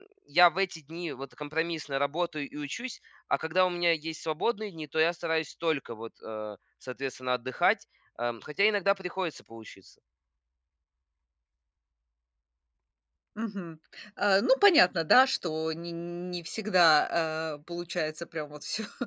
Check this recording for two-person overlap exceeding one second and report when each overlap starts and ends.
none

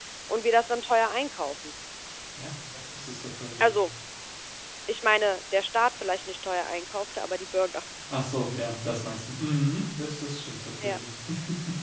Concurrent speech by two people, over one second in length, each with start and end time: none

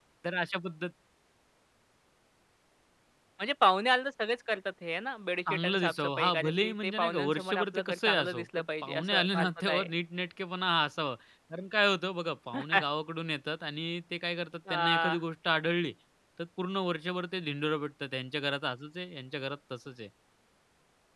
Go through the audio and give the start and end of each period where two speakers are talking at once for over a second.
5.5-9.9

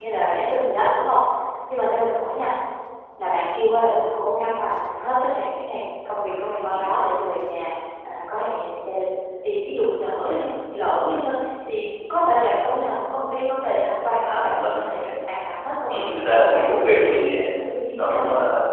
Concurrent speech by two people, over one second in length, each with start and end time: 15.9-17.3

